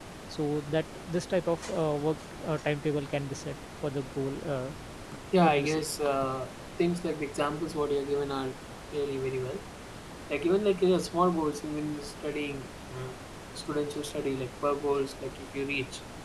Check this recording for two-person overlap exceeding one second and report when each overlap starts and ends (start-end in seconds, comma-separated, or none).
none